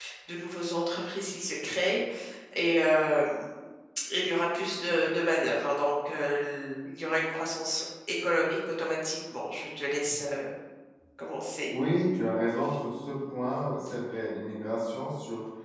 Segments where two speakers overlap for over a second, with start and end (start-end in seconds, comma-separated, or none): none